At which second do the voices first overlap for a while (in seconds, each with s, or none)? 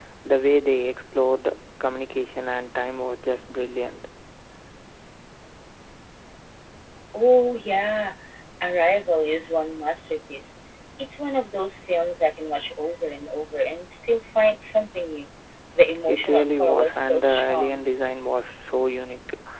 16.1 s